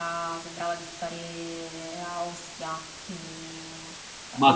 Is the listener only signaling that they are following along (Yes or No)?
Yes